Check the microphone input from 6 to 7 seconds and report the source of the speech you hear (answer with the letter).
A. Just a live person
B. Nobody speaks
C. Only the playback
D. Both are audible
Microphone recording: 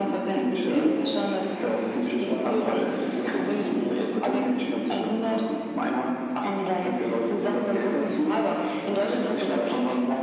C